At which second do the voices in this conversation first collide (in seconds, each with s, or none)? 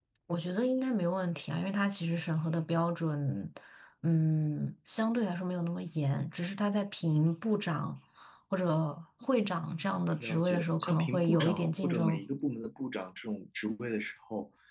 10.2 s